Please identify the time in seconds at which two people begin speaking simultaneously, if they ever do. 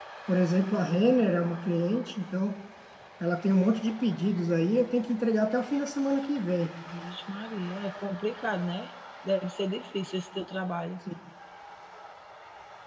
none

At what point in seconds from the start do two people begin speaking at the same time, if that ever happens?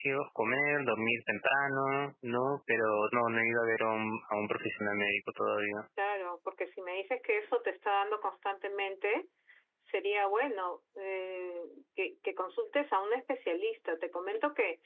none

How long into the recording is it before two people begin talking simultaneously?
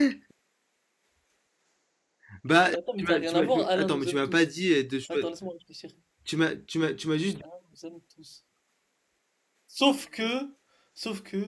2.7 s

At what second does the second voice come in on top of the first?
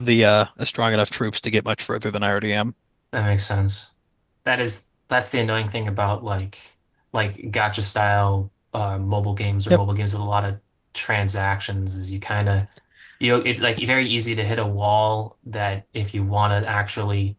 none

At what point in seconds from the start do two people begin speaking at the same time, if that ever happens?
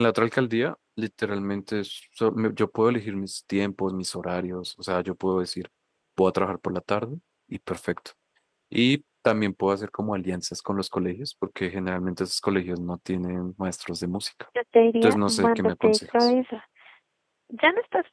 15.0 s

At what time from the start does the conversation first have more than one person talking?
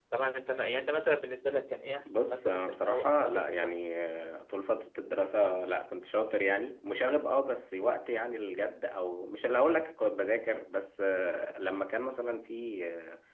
2.0 s

